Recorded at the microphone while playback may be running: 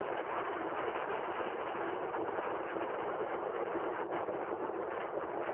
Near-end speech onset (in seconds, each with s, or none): none